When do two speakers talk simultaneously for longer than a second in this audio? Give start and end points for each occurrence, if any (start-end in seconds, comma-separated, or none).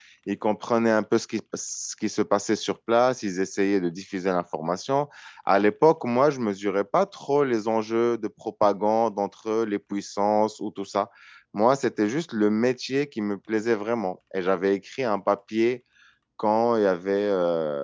none